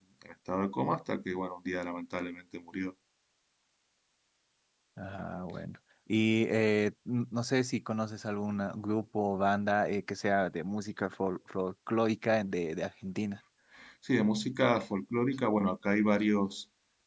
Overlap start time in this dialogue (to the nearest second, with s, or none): none